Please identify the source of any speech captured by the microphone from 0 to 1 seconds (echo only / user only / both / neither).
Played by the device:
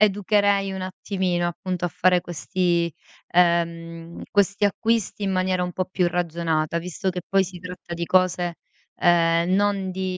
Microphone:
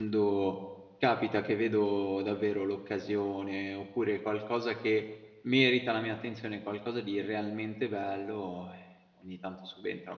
user only